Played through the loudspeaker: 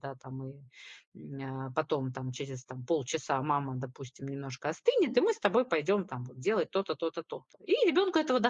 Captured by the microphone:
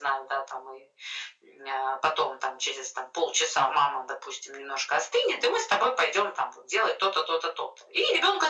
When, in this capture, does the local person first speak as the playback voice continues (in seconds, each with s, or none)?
none